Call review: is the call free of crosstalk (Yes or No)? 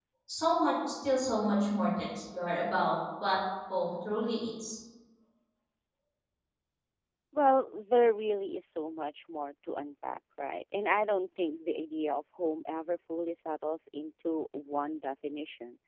Yes